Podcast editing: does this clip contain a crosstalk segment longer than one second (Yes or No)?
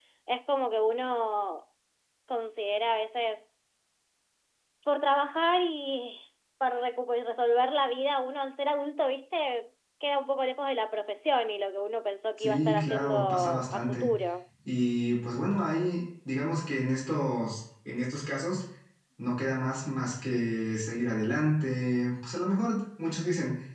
Yes